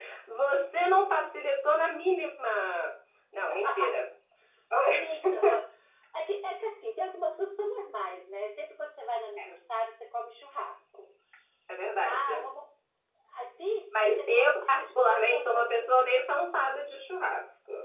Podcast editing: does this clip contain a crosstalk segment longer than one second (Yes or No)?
Yes